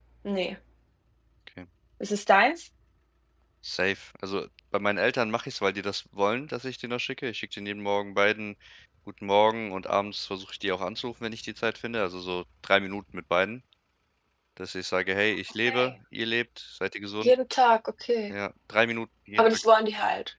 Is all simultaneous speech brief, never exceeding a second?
Yes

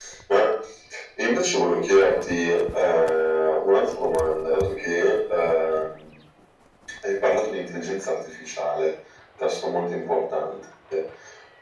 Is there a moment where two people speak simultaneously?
No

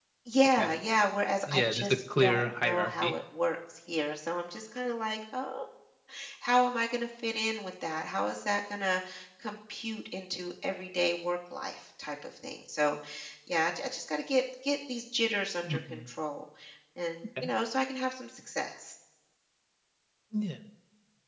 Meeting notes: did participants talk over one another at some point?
Yes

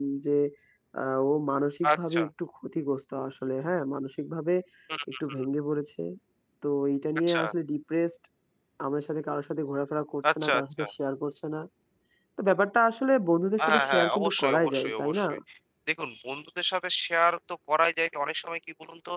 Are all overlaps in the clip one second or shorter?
No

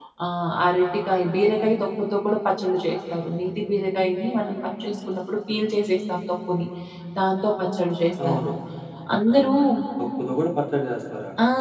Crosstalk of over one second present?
No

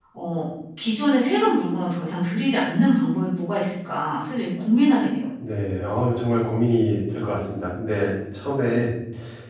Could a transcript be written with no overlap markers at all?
Yes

